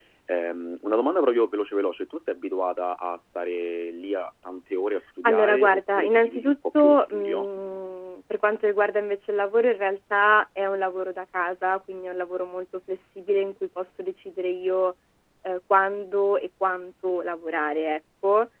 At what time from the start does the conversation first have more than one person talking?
5.2 s

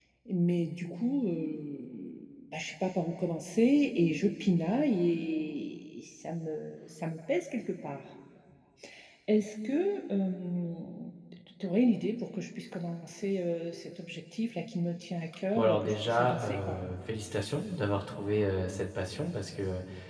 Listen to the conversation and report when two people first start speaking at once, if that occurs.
15.6 s

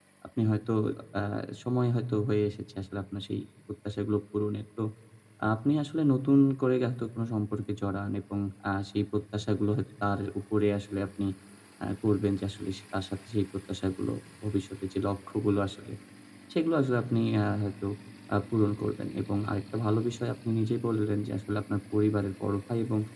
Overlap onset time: none

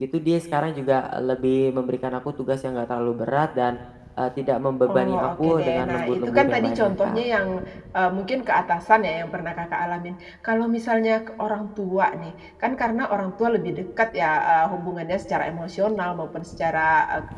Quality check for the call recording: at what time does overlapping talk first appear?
4.9 s

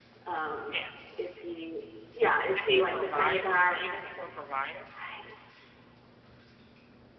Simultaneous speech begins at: 2.5 s

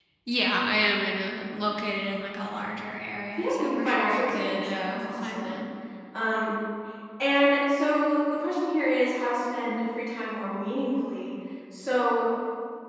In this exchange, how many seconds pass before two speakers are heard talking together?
3.4 s

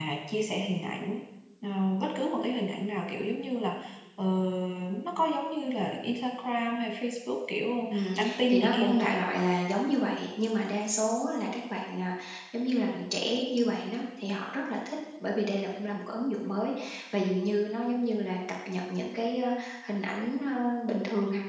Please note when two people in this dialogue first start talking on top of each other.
7.9 s

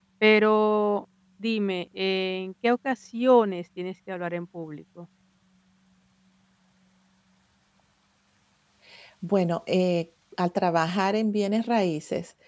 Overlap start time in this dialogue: none

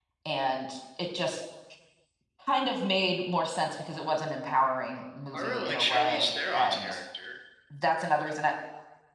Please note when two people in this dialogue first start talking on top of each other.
5.3 s

